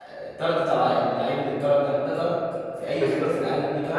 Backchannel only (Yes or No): No